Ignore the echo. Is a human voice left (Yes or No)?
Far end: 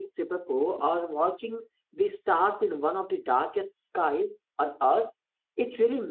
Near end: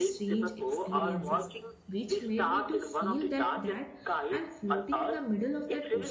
Yes